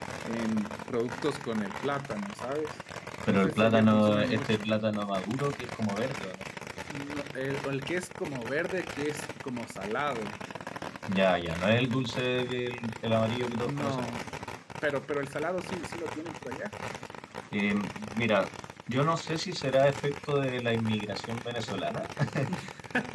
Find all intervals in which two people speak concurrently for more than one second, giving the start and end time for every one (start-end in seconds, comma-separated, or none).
3.3-4.7